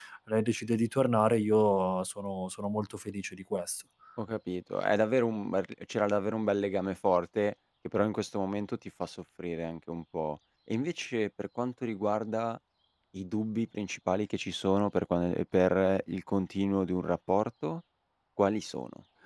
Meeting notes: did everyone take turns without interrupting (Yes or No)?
Yes